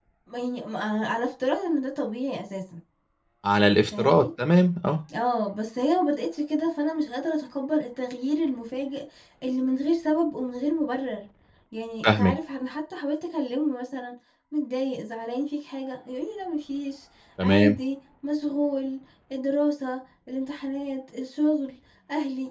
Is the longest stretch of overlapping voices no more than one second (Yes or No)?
Yes